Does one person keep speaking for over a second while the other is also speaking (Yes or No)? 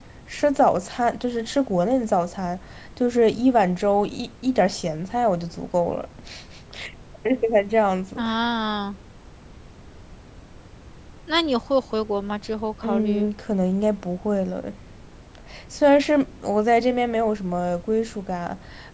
No